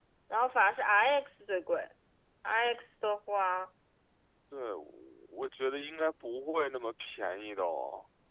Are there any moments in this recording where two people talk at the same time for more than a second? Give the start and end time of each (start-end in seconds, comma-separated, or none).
none